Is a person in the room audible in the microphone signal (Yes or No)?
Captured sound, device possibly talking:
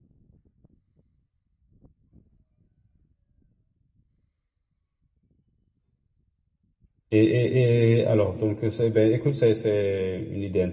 Yes